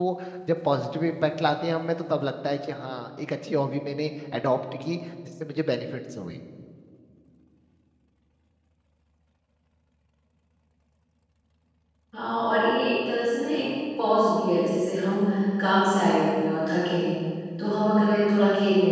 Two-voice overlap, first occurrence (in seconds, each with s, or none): none